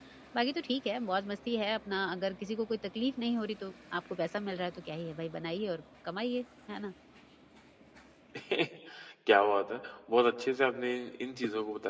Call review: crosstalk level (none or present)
none